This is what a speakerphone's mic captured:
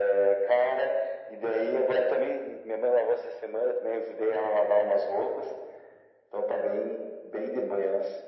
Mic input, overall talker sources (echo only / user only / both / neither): echo only